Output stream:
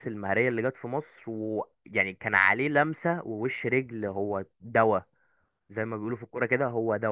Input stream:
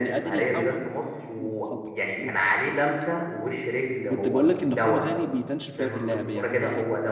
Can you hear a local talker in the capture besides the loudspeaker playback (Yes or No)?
Yes